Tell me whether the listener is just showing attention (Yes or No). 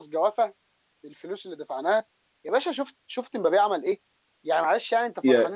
Yes